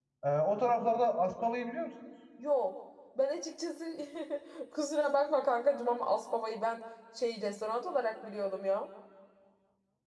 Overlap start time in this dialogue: none

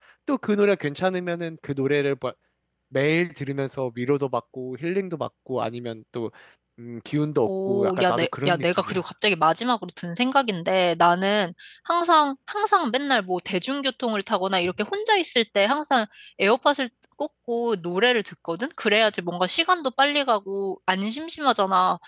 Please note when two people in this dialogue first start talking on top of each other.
7.5 s

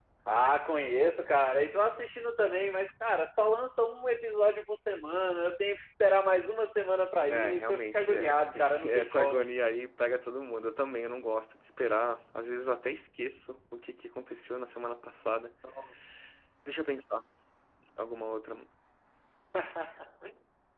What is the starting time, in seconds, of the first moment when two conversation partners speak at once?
7.3 s

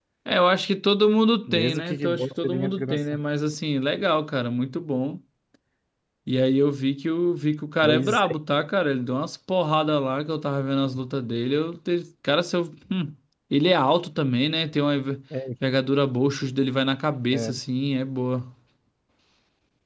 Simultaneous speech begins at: 1.5 s

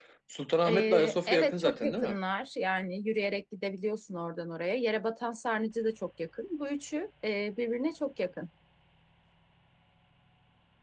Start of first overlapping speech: 0.6 s

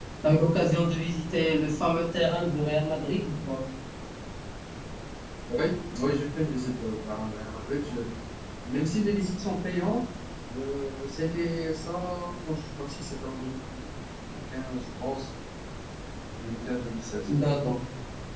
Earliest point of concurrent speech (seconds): none

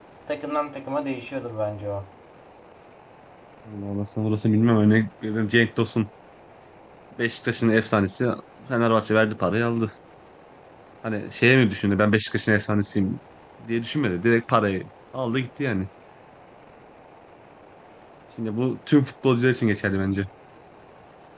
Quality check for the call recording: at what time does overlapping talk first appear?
none

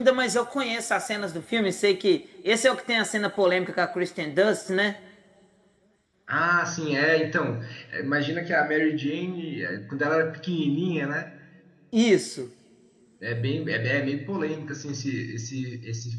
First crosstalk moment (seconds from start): none

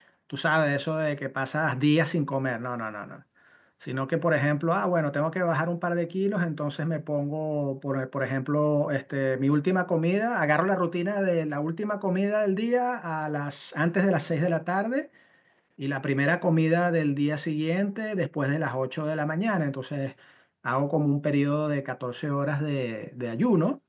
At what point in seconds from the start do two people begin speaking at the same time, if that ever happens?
none

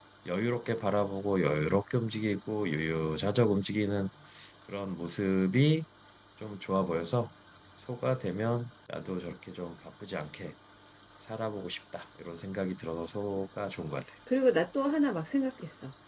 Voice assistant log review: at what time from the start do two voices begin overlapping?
none

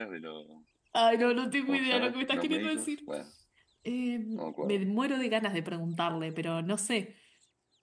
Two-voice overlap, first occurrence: 1.6 s

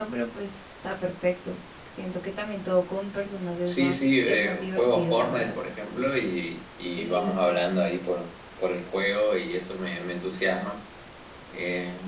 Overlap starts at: 3.6 s

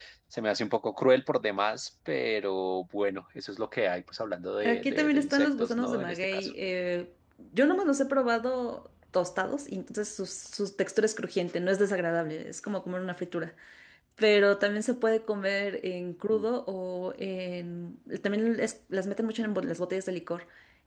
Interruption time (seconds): 4.6 s

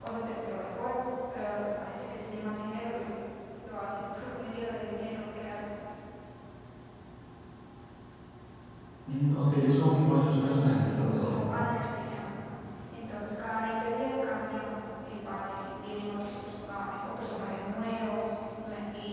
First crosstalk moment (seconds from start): 10.2 s

